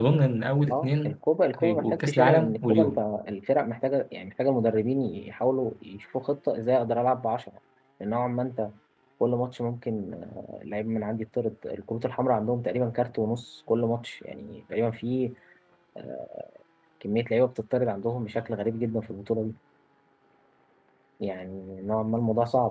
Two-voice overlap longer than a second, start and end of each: 1.6-3.0

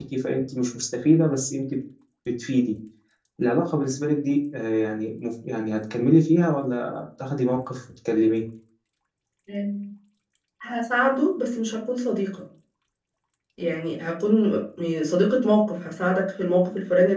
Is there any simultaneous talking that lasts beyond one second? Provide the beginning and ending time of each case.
none

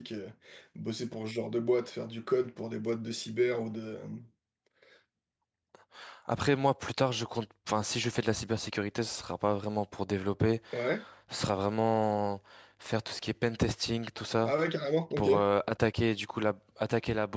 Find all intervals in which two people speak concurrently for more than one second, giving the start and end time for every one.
none

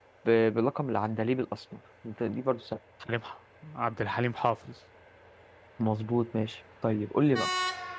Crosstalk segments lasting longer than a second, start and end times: none

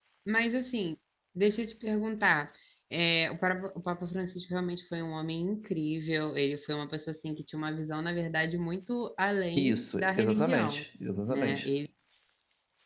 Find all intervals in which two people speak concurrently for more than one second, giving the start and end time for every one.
9.6-10.8

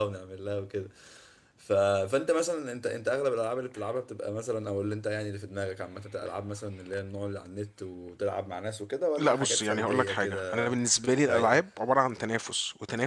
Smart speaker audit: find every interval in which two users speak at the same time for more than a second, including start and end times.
9.2-10.7

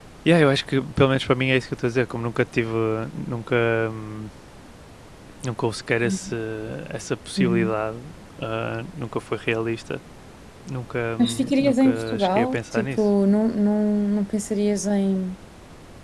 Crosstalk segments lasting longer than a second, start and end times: 11.2-13.0

